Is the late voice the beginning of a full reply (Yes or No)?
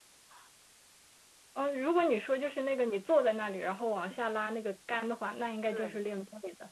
No